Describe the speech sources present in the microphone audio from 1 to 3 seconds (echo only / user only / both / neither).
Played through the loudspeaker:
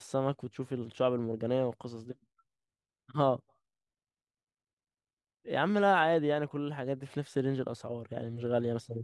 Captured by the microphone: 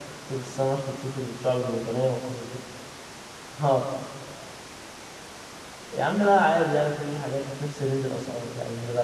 echo only